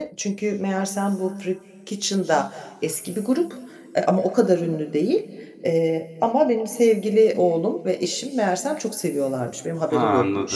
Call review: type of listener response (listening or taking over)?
listening